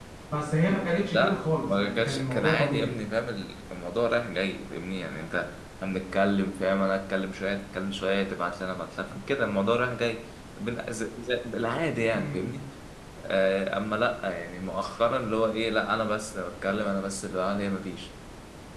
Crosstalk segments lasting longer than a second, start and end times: 1.1-2.9

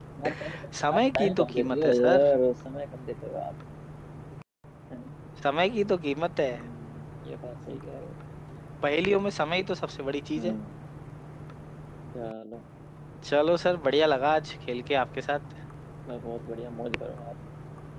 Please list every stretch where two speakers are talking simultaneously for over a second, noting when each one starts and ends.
1.0-2.3

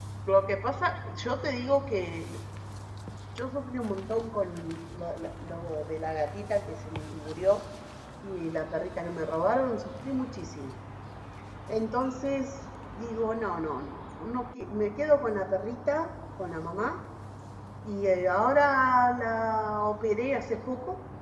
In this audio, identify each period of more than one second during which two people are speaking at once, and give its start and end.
none

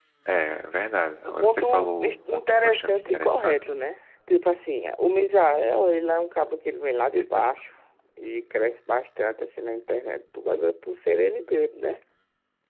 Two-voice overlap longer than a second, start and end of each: 1.2-3.5

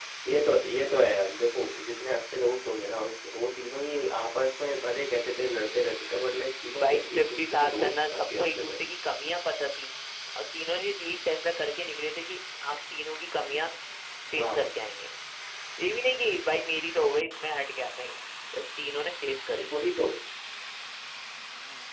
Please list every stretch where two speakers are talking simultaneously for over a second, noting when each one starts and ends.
6.8-8.8

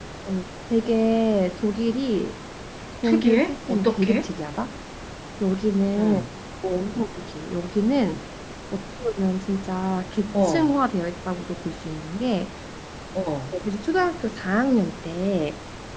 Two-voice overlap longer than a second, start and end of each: 3.0-4.3

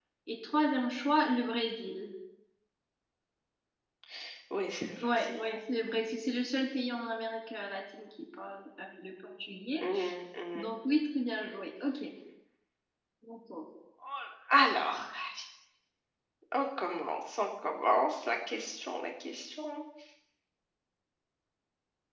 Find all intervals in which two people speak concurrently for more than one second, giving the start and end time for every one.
none

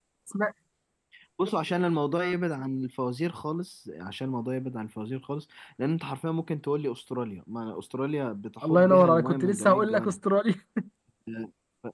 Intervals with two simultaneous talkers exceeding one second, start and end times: 8.6-10.2

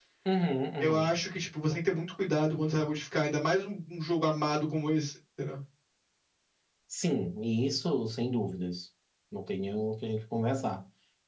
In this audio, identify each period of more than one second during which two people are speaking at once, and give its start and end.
none

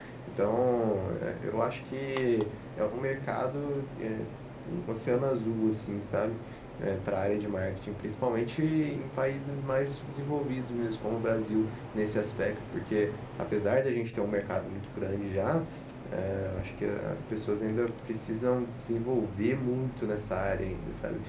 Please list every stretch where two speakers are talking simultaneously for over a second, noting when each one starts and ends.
none

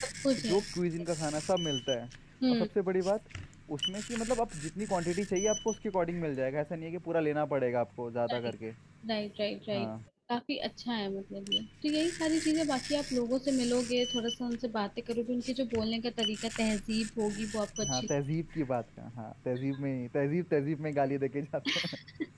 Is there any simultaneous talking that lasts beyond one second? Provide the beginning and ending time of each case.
none

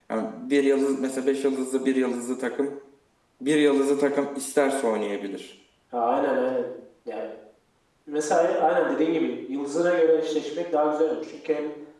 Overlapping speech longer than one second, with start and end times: none

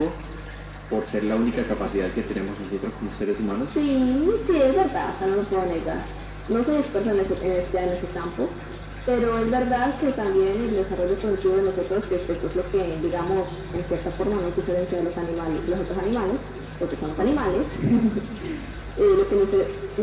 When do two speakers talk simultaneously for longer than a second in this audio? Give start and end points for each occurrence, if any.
none

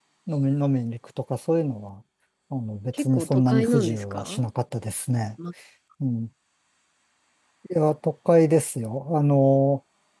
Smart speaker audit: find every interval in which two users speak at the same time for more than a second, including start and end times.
2.9-4.4

